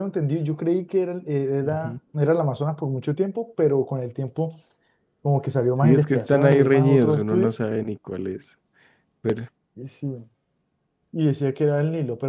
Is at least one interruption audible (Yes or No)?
Yes